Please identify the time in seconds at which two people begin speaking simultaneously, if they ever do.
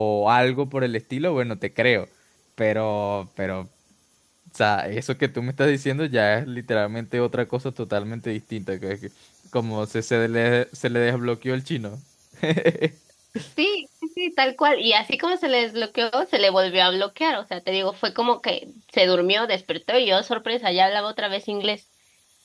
none

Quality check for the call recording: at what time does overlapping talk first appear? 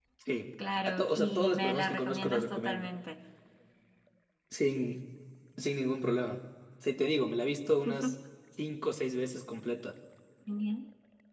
0.9 s

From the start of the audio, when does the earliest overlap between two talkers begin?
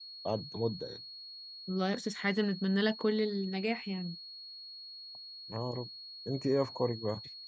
none

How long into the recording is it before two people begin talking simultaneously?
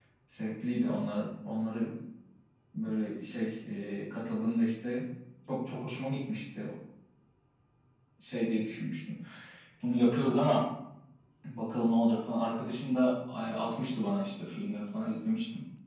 none

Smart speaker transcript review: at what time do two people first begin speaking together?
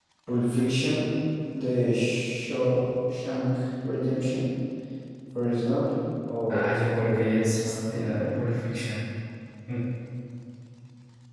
6.5 s

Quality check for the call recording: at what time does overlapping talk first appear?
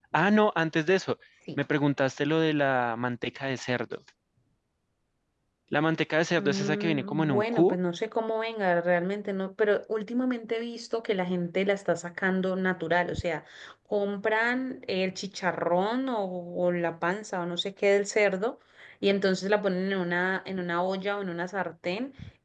6.4 s

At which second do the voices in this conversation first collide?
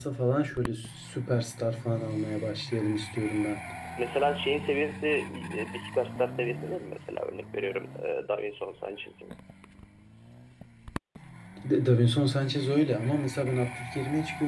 none

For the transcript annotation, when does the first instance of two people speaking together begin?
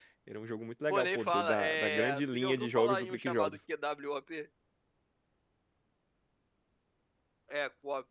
0.9 s

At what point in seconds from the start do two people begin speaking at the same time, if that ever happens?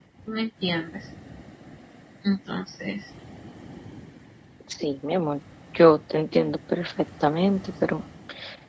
none

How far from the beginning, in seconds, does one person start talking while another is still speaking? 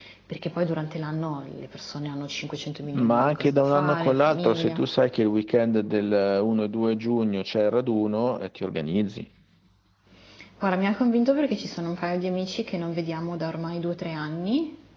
2.9 s

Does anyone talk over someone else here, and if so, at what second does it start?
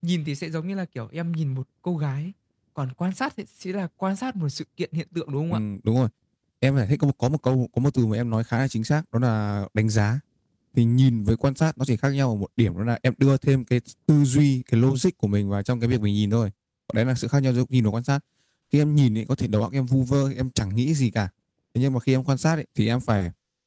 none

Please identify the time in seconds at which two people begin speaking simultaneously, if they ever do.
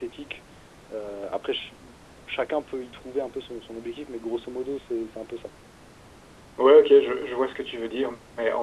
none

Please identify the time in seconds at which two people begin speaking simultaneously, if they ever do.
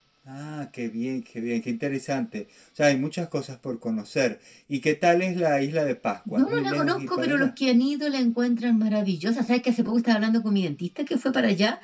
6.2 s

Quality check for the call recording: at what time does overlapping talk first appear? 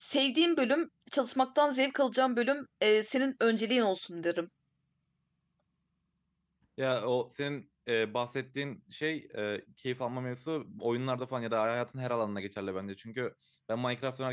none

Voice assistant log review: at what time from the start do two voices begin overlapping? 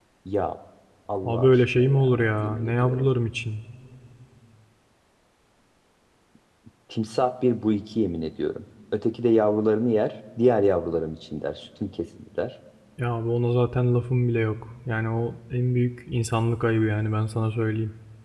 1.2 s

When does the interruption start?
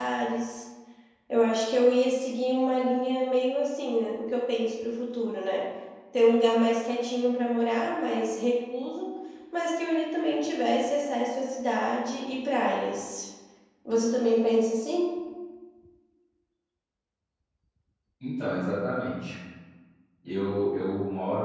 none

